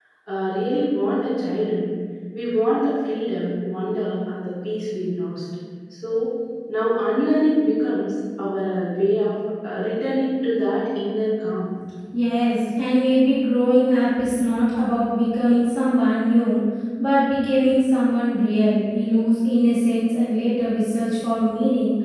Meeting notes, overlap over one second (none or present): none